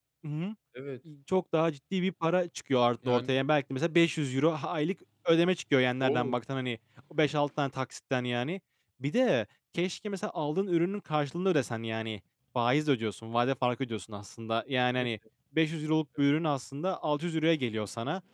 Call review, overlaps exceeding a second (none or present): none